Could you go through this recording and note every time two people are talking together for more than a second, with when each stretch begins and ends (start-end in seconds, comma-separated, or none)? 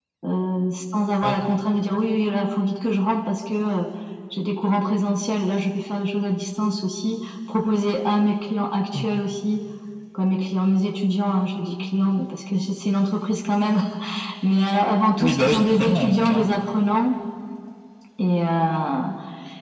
15.2-16.4